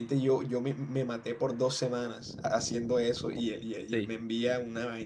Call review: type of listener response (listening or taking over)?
listening